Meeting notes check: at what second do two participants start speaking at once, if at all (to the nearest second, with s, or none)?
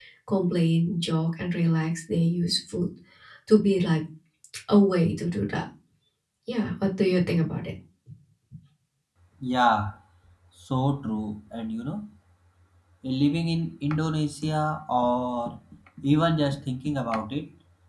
none